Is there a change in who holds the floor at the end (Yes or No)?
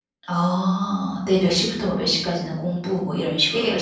Yes